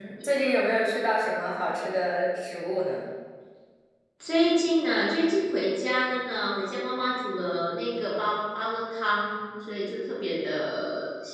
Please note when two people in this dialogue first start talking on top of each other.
none

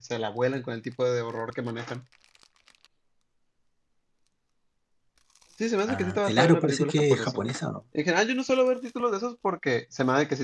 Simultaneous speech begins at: 5.9 s

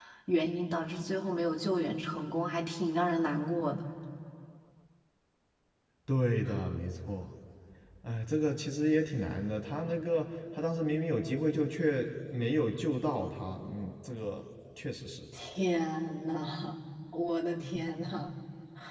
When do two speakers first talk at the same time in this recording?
none

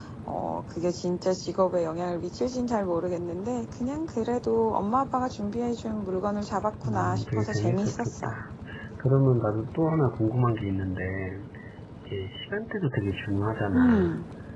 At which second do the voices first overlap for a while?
6.8 s

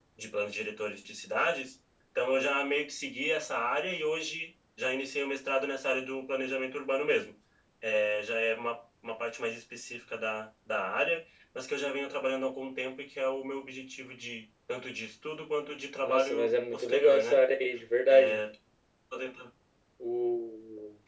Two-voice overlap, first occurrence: 16.0 s

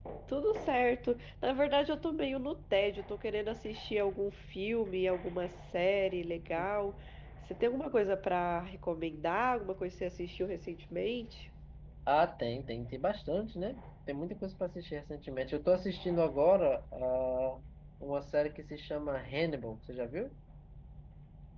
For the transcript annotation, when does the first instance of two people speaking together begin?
none

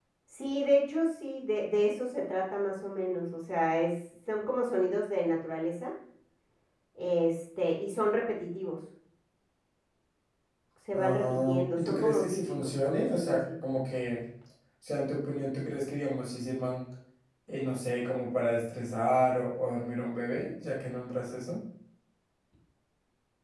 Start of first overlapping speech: 10.9 s

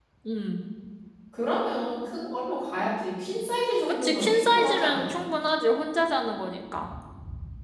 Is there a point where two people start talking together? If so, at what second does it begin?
3.9 s

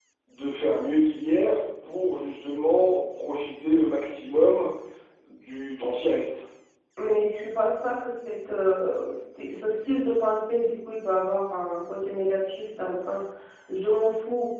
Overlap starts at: none

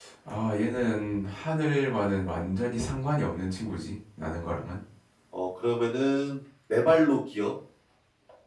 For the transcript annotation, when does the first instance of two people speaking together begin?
none

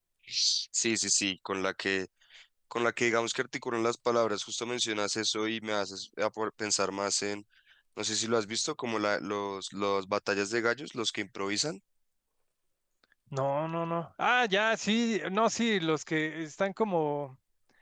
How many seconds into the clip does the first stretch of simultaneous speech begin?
none

